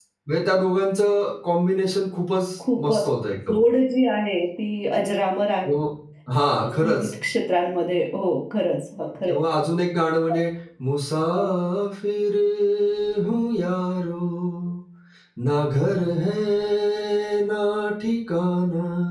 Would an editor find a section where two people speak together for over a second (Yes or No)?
No